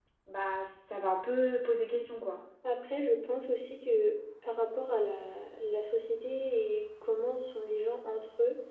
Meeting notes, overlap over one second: none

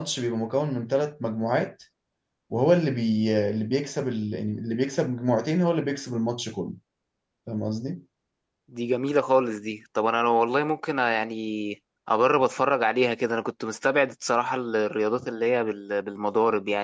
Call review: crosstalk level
none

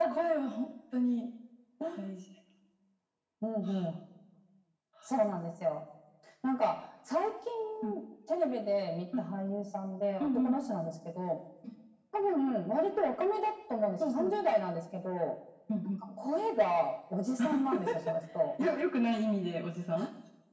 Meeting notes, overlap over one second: none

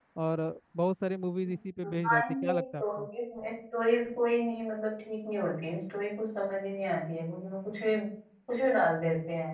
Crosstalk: present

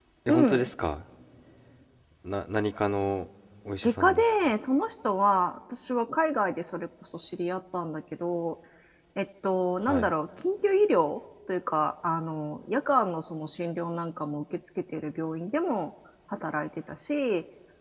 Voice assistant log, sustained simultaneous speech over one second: none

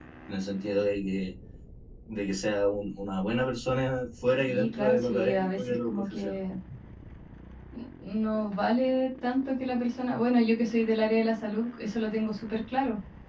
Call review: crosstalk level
present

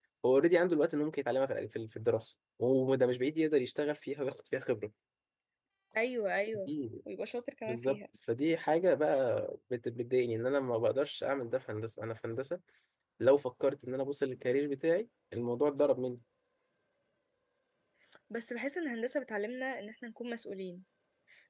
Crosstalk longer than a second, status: none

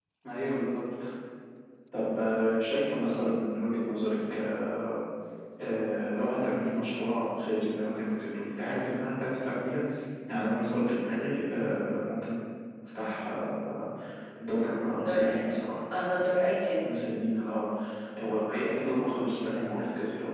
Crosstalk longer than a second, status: none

